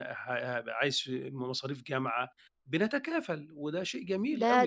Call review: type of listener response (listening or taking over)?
taking over